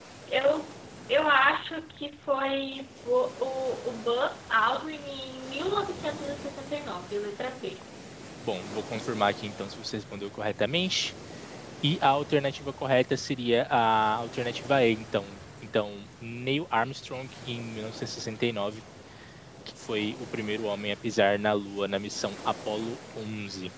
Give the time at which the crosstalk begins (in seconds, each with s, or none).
none